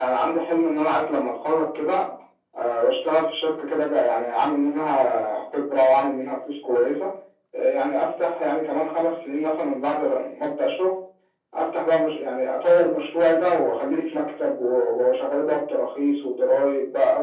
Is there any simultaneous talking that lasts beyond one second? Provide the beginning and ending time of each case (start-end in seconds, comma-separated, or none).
none